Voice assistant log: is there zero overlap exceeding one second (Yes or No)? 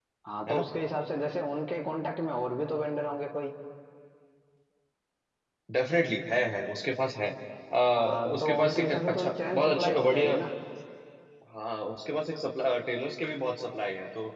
No